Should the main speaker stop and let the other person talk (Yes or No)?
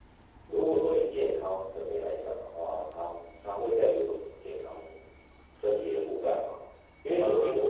No